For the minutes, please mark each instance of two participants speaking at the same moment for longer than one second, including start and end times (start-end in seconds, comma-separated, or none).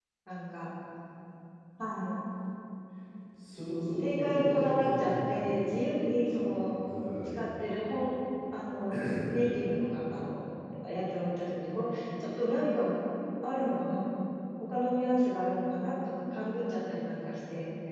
4.0-5.5